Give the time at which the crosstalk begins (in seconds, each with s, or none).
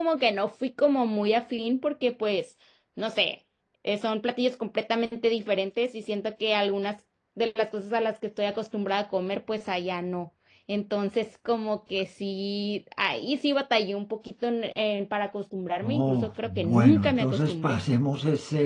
15.8 s